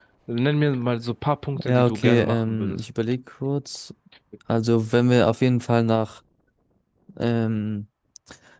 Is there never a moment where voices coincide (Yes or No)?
No